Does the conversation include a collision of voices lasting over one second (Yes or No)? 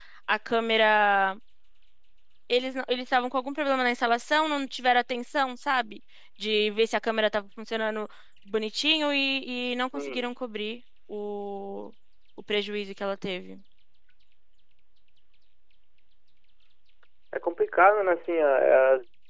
No